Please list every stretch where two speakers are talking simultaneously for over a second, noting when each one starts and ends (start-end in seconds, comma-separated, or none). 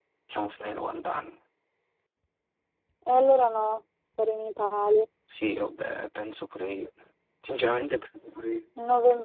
none